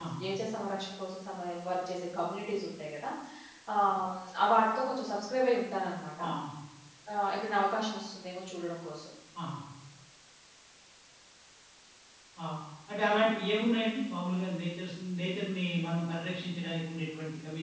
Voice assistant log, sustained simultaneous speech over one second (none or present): none